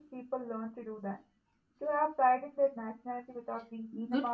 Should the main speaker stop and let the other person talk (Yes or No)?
Yes